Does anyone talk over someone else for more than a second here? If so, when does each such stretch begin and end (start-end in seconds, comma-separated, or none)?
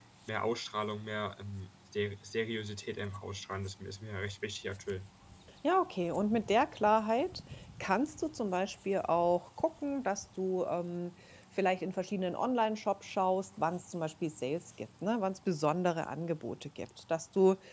none